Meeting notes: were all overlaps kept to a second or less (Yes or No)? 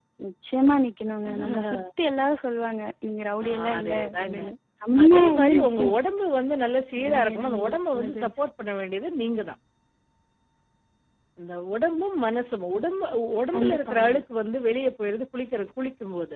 No